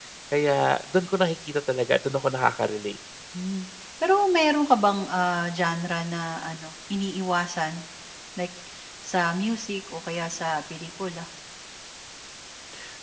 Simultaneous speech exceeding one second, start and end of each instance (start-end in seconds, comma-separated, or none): none